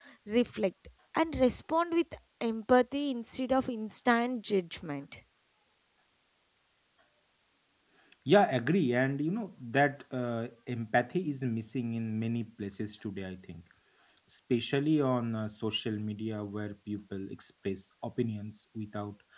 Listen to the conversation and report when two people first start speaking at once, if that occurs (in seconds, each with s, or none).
none